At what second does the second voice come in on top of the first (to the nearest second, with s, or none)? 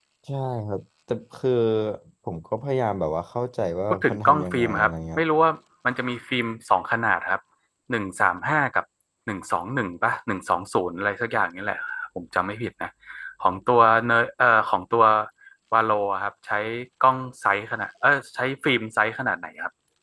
4 s